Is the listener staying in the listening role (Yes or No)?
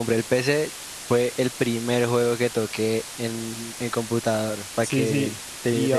No